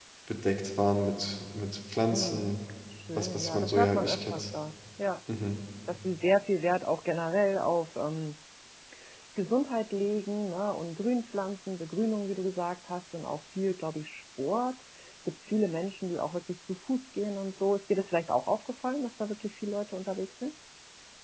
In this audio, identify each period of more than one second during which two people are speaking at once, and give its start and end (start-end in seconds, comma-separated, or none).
3.2-4.4